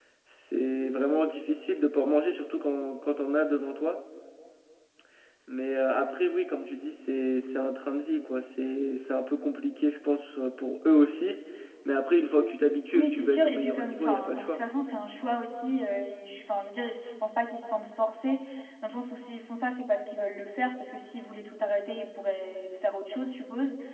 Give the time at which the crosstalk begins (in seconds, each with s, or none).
12.9 s